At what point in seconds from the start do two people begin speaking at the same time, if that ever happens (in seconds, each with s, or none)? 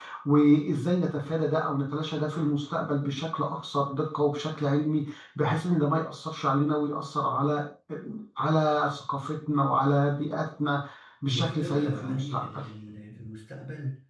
11.2 s